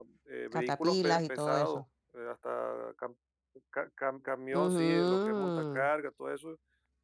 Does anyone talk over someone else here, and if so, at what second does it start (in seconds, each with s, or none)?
0.5 s